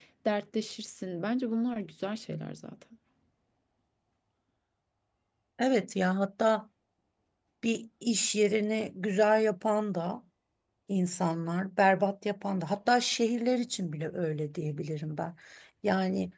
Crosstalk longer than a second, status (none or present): none